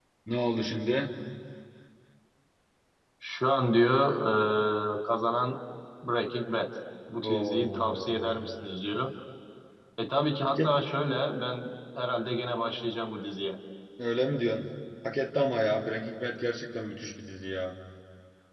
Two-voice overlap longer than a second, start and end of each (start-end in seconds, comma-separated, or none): 7.2-8.8